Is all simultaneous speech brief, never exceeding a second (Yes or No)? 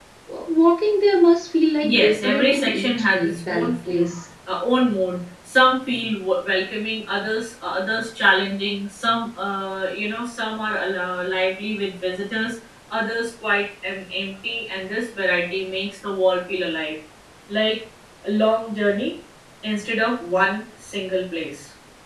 No